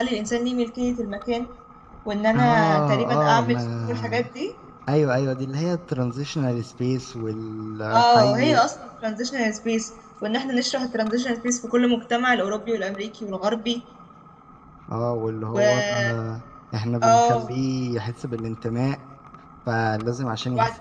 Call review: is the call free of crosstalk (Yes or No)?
No